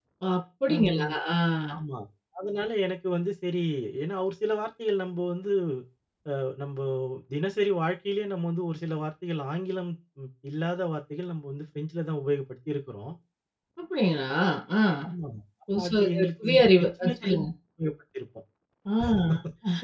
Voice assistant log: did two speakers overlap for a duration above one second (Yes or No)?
Yes